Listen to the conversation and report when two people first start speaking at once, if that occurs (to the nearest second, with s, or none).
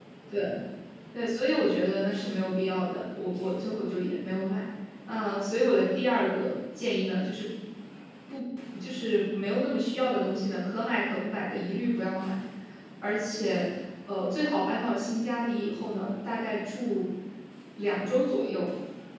none